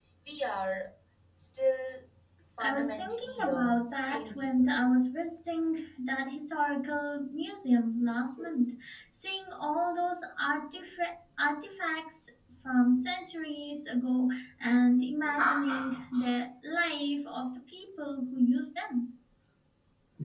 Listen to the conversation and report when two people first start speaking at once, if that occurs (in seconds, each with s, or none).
2.6 s